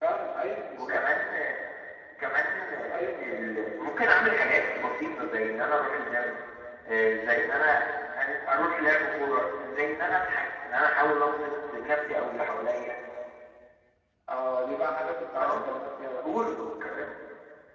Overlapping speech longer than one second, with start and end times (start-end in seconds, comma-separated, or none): none